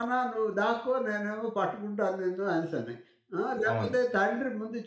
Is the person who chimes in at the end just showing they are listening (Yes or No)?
Yes